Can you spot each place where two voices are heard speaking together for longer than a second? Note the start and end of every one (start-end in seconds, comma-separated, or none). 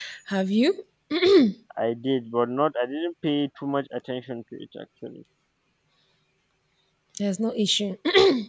none